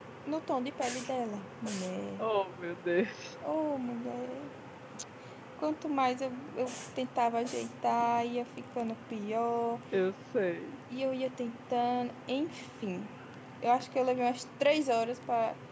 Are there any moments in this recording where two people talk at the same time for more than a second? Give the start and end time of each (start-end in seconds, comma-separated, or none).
none